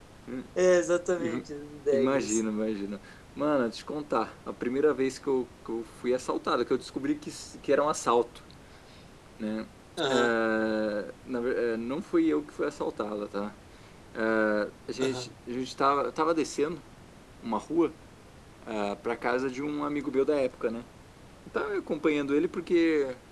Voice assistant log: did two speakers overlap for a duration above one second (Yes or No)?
No